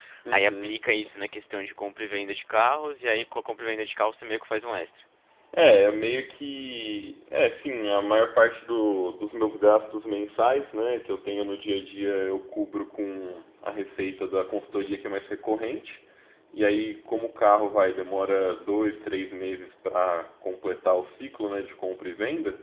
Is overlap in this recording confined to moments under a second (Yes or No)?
Yes